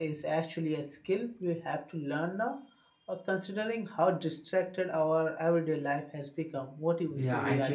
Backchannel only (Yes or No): No